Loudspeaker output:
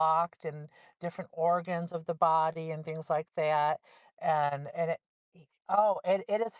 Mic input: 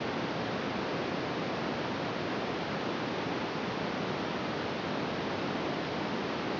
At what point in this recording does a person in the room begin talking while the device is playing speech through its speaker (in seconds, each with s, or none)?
none